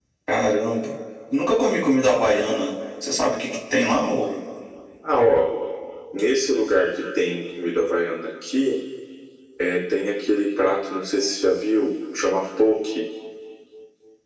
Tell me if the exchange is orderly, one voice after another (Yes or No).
Yes